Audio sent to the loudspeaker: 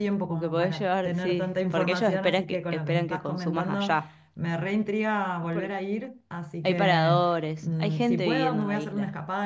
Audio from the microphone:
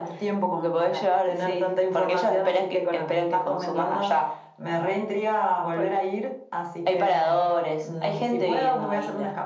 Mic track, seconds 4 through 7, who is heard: echo only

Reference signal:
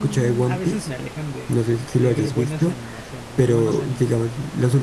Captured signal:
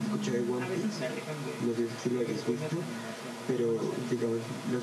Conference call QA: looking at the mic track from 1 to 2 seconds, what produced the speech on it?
echo only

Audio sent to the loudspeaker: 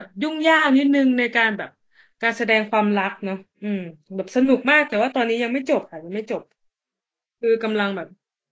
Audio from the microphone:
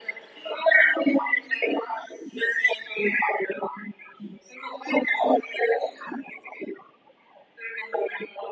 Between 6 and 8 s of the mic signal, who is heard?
echo only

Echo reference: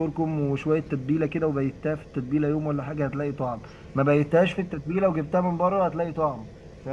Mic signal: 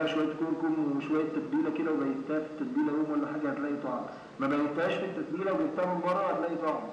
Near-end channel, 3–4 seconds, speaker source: echo only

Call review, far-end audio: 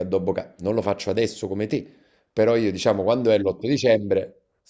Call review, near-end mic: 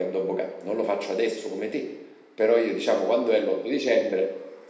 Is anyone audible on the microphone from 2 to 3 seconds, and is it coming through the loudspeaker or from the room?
echo only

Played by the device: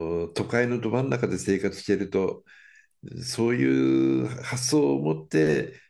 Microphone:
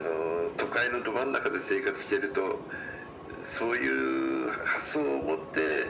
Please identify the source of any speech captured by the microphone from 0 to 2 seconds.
echo only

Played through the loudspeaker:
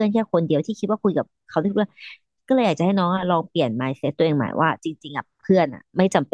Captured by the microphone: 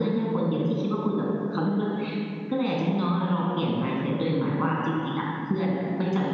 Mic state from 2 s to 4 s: echo only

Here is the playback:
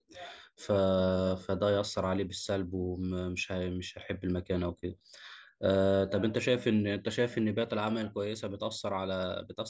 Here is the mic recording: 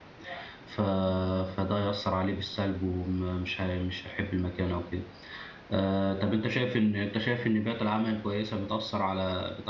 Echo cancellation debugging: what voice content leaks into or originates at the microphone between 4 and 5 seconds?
echo only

